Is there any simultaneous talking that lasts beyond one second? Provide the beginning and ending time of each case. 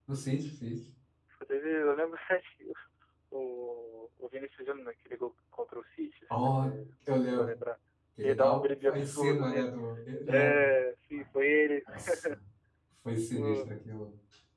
8.2-9.7

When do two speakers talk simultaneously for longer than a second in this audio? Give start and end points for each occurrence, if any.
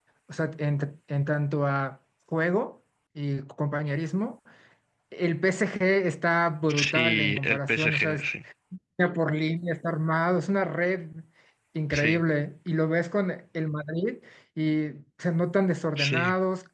6.7-8.3

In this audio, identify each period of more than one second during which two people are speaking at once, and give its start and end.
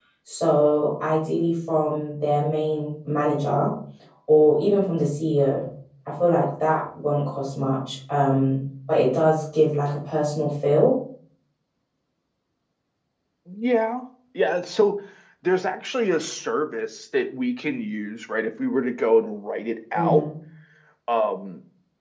none

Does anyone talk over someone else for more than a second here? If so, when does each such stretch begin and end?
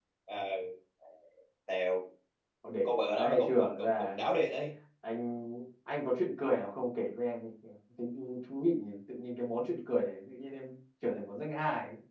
2.8-4.3

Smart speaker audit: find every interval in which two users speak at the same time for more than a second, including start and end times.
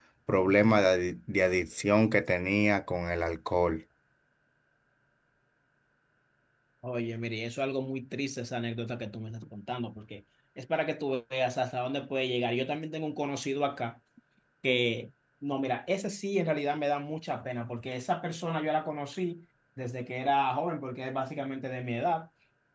none

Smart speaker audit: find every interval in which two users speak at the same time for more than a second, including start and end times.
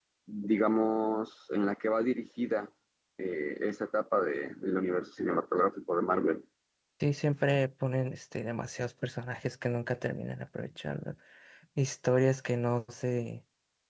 none

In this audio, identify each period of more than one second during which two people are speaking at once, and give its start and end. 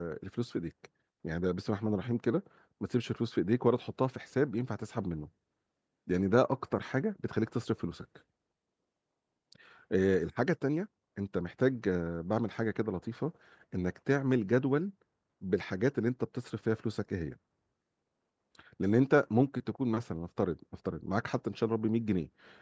none

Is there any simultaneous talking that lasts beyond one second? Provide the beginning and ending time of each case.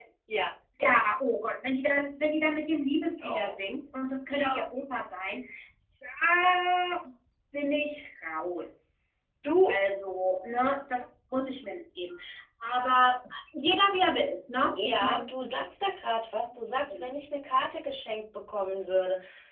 none

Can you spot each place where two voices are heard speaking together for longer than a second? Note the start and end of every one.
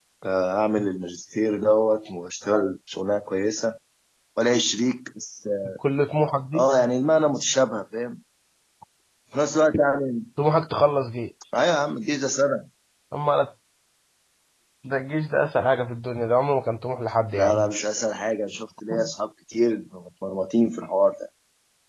none

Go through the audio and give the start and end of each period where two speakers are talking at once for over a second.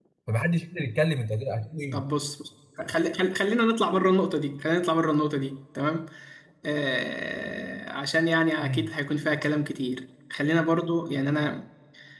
none

